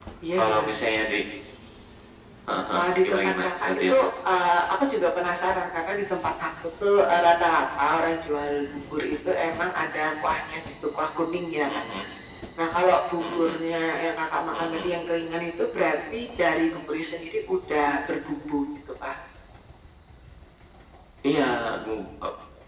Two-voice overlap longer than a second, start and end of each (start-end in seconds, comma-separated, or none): 2.7-4.0